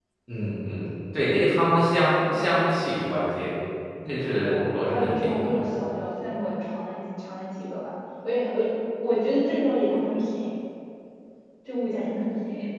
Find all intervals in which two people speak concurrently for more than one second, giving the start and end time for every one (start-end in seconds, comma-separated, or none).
4.3-5.7